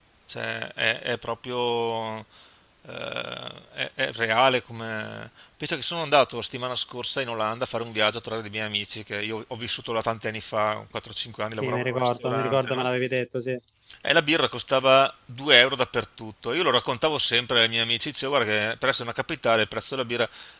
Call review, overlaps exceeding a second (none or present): present